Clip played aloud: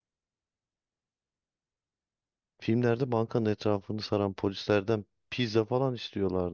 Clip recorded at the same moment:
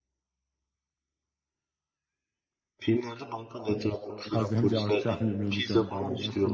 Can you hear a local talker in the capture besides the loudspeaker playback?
Yes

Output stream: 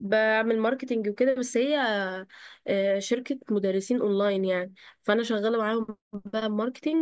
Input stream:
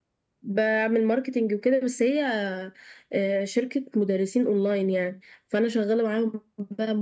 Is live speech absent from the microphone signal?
Yes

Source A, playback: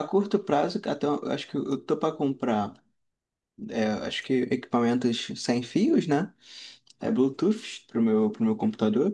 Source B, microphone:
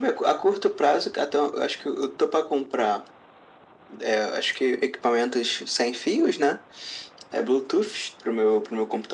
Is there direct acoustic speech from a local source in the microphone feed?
No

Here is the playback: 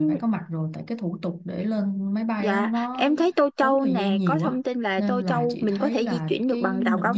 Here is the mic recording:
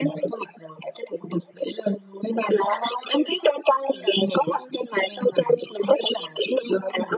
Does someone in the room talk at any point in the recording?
No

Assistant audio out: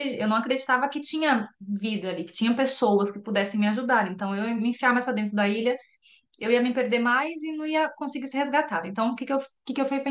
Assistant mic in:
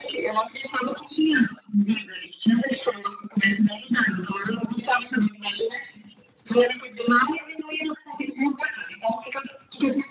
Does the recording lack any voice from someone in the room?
Yes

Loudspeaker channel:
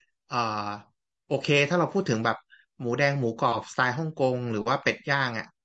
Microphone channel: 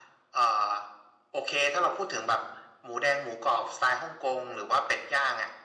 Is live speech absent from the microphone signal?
Yes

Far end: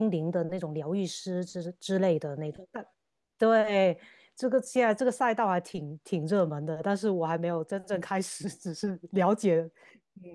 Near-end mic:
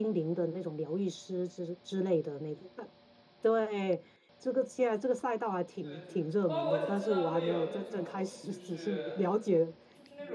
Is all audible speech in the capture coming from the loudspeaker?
No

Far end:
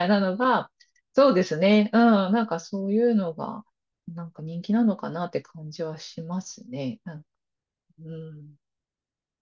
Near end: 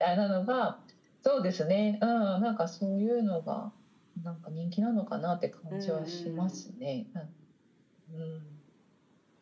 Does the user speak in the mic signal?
Yes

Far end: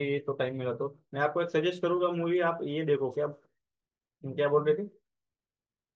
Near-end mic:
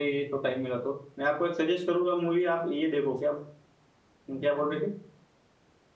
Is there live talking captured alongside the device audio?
No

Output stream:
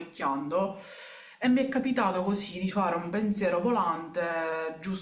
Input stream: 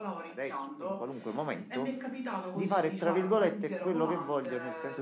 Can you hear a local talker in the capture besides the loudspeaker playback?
Yes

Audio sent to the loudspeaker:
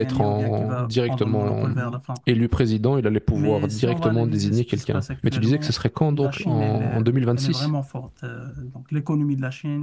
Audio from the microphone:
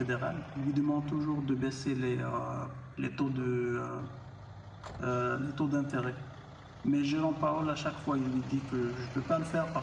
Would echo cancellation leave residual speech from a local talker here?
Yes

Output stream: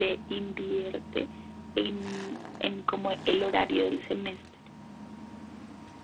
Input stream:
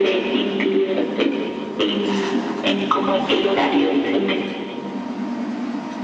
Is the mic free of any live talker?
Yes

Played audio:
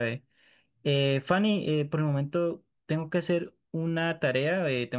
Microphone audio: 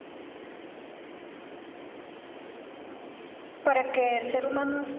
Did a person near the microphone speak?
Yes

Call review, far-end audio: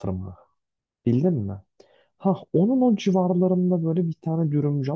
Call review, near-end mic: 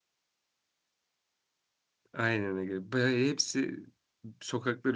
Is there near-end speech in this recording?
Yes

